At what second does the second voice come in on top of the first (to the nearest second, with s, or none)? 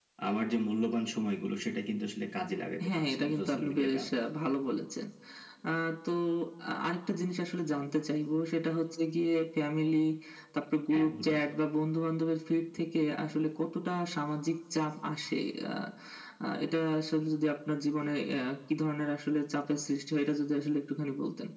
3 s